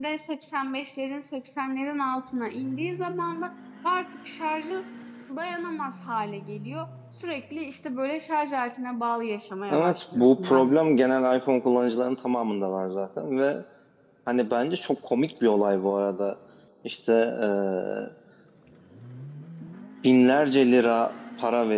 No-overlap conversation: No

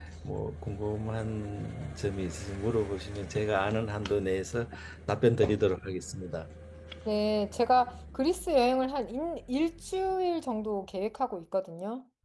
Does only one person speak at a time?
Yes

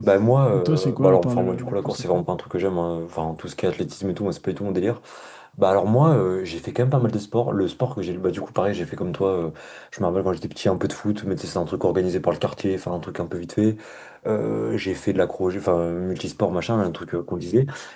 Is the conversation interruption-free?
No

